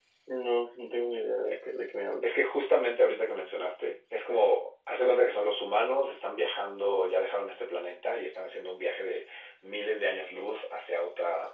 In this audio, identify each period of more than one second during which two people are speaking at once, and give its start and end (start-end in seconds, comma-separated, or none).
none